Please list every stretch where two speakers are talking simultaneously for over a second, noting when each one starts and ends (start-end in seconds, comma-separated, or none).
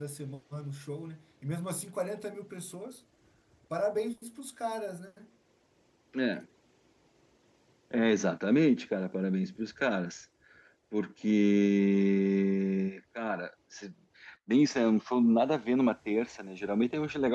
none